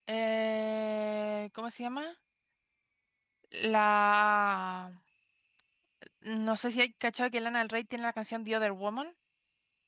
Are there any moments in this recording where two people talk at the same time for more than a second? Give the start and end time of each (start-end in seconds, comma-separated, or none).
none